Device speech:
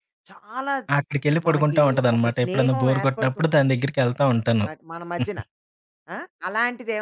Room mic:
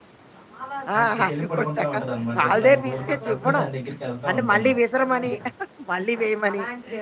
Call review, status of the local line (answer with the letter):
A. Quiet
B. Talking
B